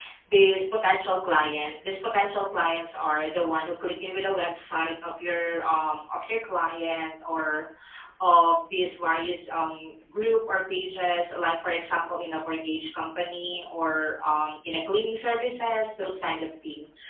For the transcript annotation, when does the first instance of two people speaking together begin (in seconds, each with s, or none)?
none